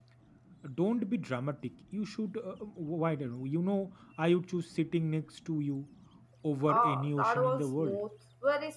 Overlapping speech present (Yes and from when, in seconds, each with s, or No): Yes, from 6.7 s